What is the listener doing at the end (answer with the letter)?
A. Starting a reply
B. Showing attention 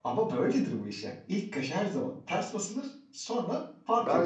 A